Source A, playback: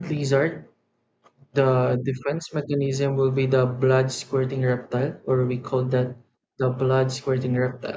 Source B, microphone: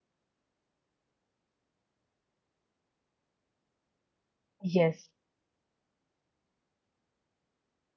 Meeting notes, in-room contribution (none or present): present